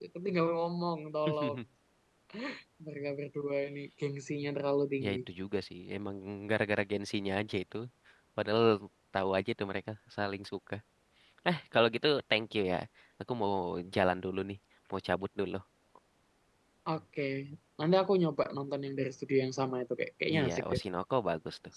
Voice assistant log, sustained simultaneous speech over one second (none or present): none